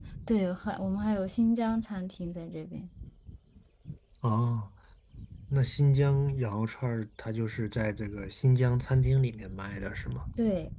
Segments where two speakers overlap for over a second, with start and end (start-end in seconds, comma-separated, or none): none